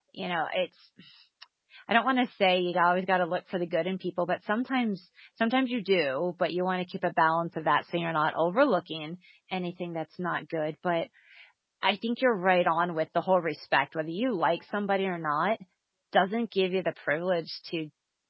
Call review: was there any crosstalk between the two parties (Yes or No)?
No